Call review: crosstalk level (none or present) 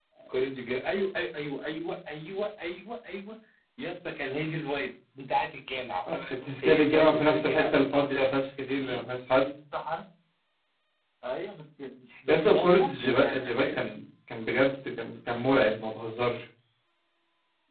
present